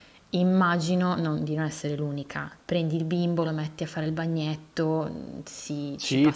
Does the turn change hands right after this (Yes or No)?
Yes